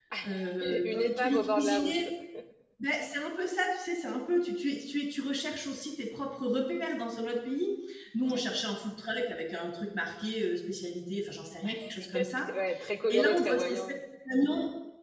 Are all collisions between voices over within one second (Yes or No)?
No